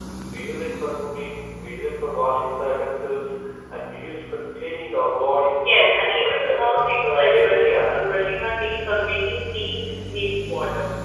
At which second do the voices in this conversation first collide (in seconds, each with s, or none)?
5.6 s